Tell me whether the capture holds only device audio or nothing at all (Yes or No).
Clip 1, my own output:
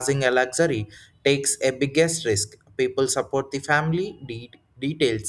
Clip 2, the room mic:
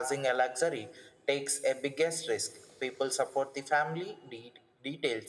Yes